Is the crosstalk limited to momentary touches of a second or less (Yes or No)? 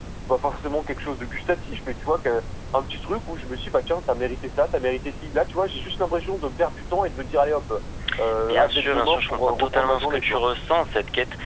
No